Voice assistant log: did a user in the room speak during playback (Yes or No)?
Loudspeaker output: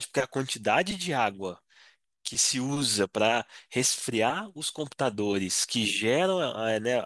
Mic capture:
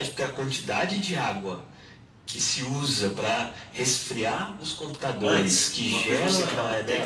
Yes